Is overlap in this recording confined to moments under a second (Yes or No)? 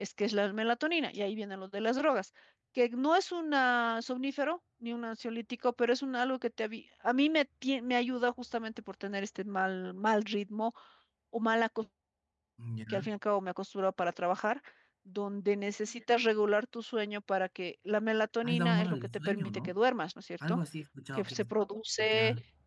No